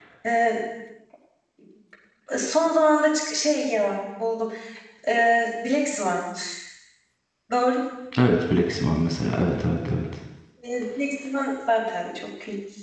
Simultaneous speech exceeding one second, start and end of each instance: none

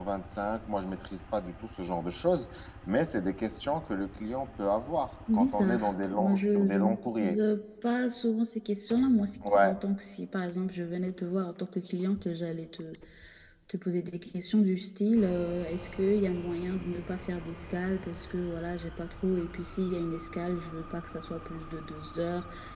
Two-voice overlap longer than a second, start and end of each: 5.3-7.4

